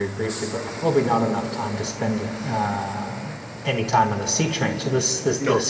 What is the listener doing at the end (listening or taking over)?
listening